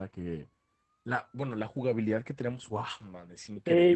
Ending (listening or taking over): taking over